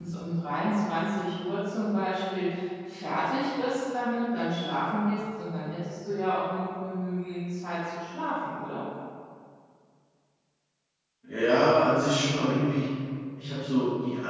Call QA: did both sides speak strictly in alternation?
Yes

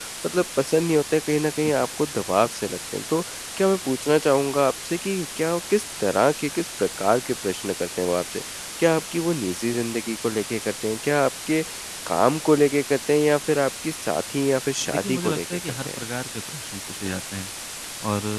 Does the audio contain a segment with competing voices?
Yes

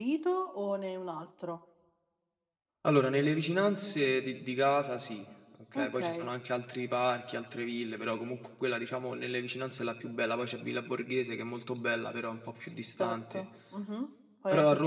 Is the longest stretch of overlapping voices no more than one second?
Yes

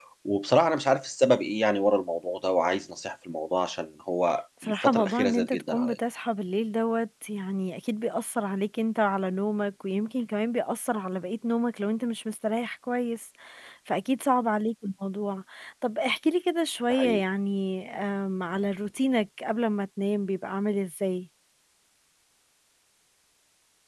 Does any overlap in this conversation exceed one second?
Yes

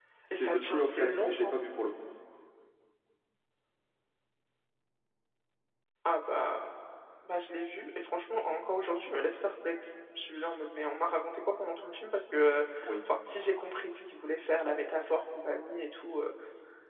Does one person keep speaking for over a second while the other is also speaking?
Yes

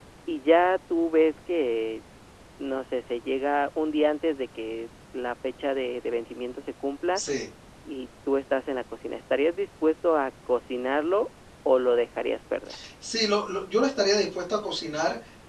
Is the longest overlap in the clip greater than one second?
No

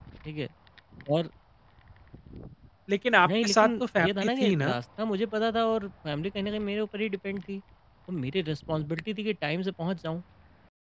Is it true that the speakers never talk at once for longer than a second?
No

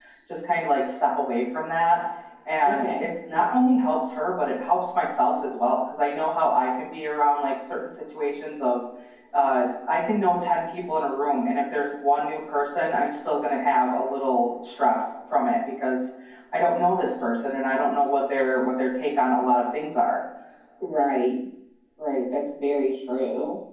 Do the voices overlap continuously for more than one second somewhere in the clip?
No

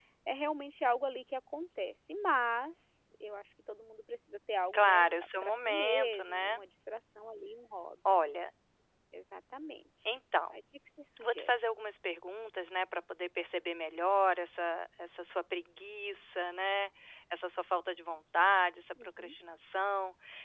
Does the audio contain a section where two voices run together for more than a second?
Yes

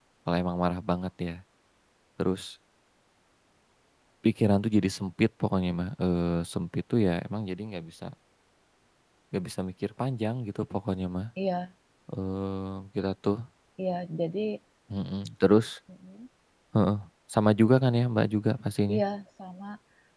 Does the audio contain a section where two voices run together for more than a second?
No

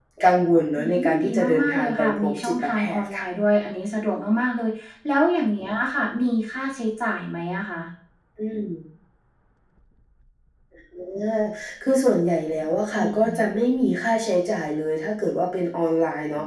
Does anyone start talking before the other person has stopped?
Yes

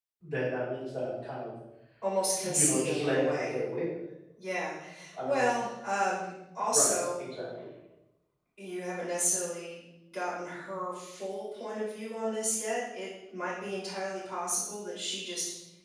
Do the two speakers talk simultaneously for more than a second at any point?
Yes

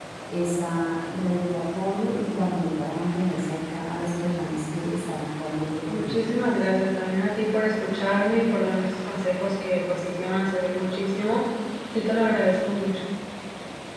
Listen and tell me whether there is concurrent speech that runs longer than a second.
No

